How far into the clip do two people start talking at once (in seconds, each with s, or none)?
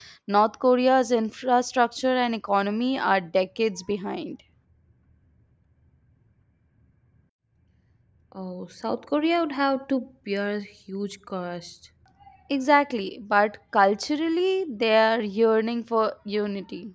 none